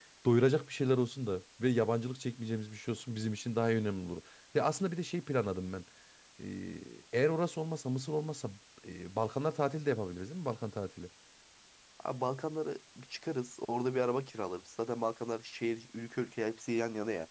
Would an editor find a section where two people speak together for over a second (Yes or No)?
No